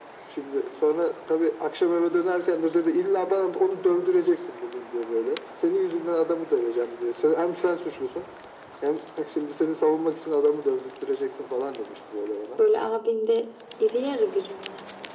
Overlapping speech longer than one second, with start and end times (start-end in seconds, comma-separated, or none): none